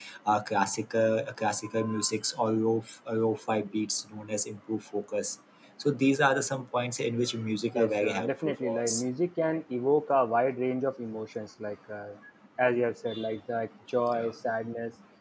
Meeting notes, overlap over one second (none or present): present